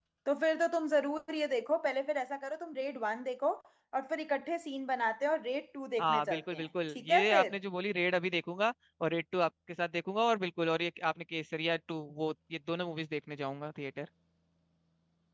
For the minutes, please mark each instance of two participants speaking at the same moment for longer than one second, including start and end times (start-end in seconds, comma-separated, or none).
6.0-7.4